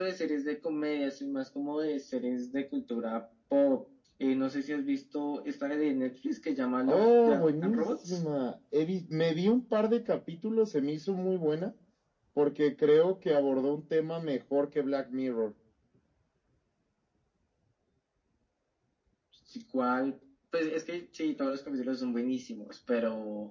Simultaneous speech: Yes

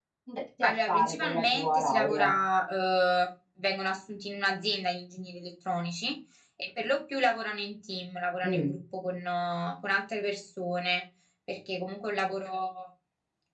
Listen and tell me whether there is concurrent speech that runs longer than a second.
Yes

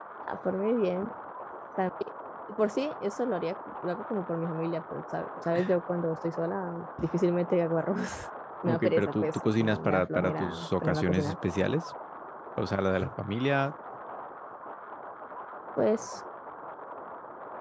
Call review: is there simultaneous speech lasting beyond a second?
Yes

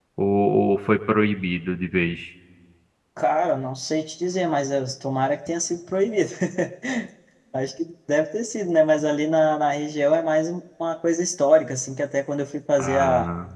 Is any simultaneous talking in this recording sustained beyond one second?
No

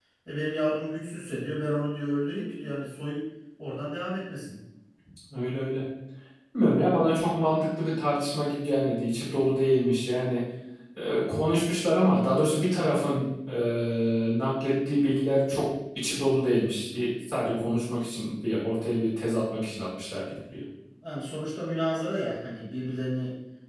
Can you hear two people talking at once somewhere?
No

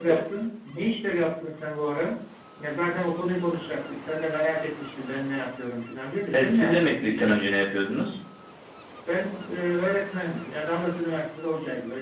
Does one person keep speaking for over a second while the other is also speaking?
Yes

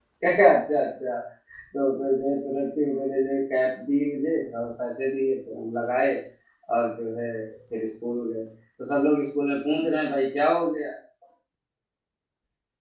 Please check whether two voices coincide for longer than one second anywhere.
No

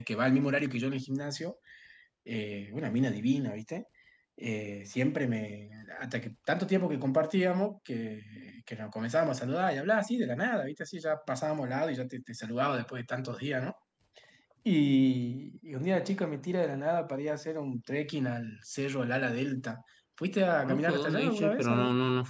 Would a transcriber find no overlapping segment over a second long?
No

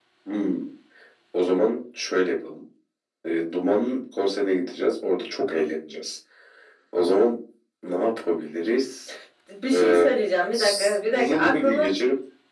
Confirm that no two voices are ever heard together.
No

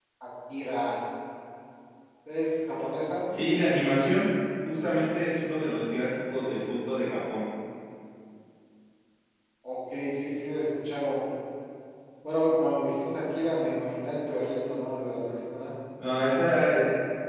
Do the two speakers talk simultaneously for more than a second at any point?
No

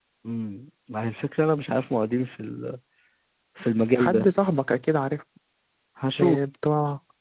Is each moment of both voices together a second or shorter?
Yes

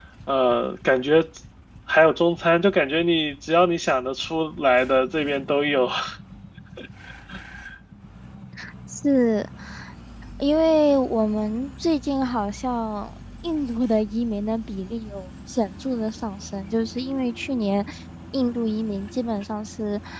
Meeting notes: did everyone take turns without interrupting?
Yes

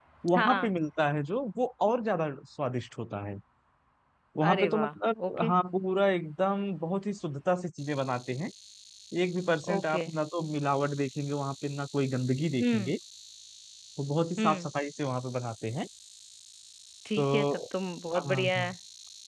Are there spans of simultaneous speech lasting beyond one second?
No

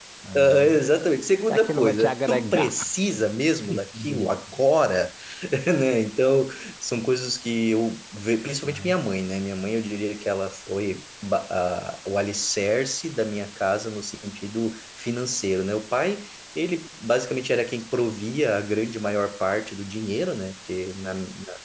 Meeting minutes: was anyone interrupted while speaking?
Yes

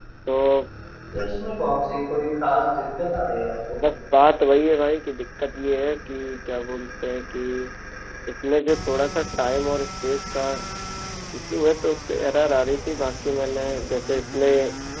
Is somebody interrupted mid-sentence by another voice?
No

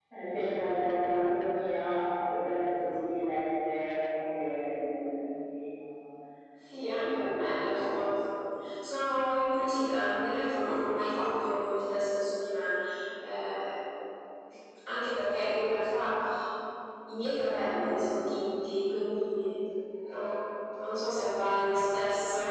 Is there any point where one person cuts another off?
Yes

